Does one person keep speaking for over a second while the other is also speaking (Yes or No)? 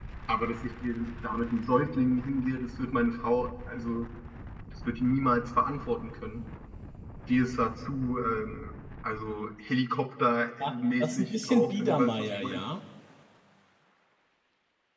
Yes